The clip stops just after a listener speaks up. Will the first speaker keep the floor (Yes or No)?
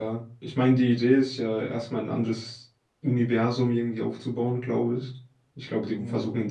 Yes